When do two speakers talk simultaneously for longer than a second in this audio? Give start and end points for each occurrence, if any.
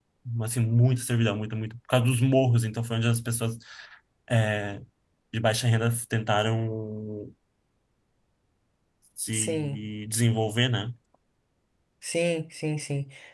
none

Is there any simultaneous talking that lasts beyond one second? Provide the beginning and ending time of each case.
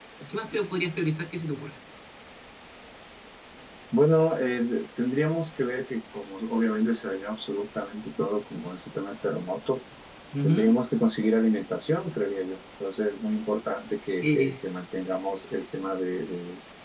none

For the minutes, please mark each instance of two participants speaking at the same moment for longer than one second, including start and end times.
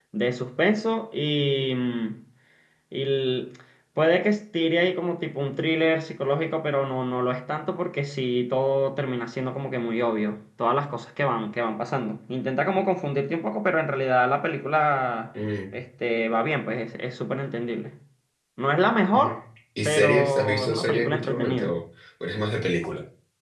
19.9-21.8

